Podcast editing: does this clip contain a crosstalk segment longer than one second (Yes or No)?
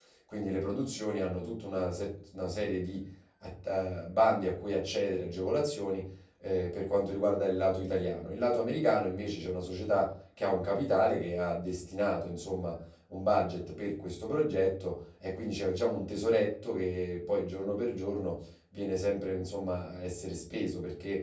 No